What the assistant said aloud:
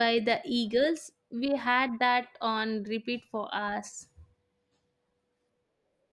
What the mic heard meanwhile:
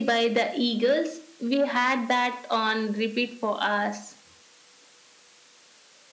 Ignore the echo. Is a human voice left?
No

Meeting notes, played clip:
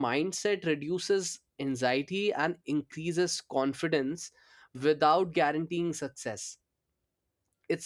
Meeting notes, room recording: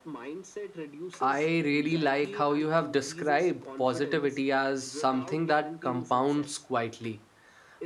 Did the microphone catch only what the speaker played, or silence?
No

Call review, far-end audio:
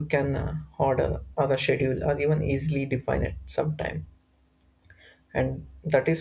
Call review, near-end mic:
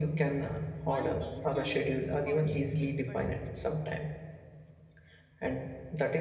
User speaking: Yes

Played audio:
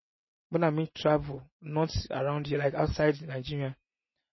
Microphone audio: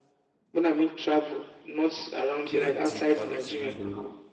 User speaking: Yes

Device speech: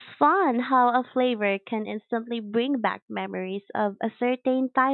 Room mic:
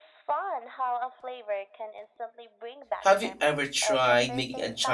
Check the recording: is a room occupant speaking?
Yes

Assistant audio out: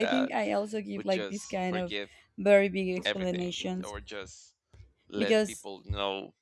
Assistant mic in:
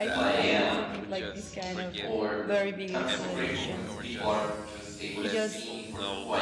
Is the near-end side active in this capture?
Yes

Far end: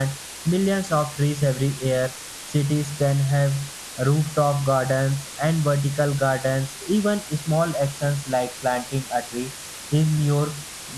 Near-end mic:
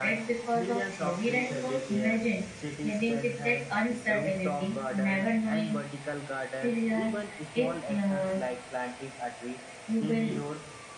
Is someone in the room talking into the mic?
Yes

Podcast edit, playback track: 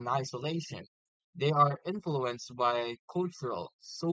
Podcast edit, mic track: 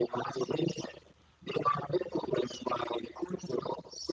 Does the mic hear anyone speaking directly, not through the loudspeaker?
No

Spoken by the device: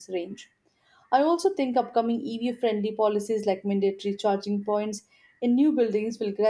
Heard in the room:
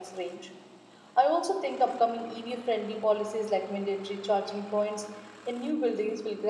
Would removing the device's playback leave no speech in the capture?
Yes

